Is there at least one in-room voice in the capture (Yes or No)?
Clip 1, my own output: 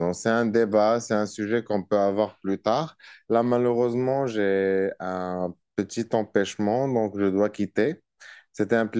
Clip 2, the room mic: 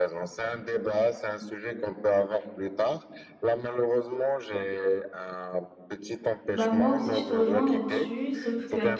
Yes